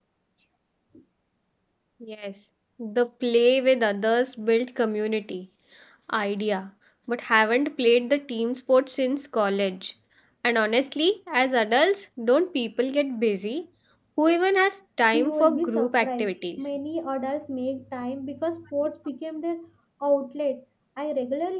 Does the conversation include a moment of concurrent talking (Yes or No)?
Yes